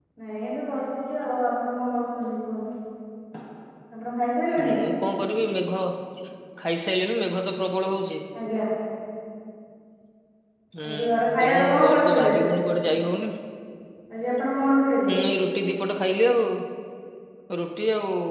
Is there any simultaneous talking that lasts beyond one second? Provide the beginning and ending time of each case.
10.9-12.3

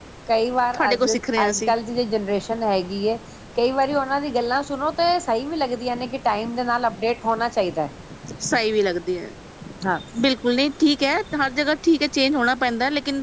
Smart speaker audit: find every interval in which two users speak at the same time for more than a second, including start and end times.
none

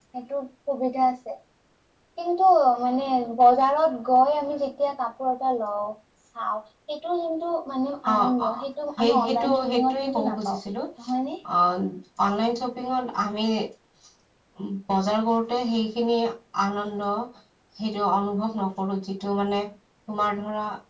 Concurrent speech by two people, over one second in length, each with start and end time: 9.0-10.6

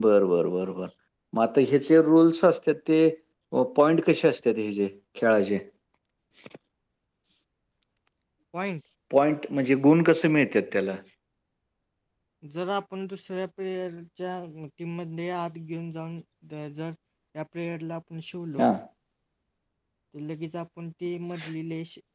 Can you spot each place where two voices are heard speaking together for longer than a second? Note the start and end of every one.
none

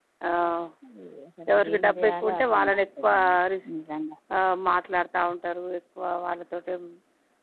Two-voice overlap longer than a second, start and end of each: 1.5-3.1

